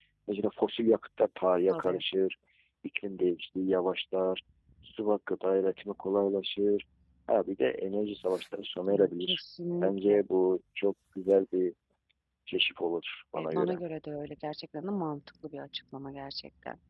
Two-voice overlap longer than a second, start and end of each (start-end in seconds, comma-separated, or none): none